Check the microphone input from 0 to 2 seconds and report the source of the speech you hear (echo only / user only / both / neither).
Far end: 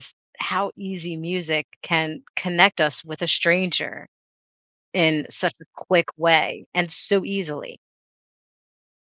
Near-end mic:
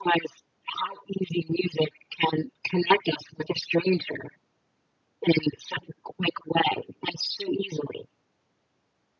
echo only